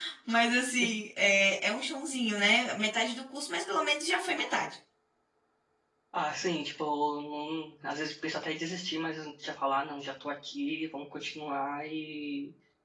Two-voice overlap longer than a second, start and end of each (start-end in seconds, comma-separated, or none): none